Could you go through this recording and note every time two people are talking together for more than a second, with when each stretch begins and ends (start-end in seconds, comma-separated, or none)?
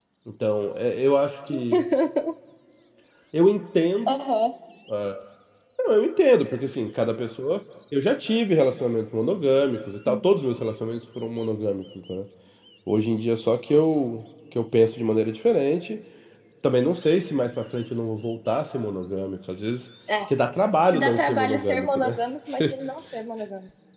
20.9-22.7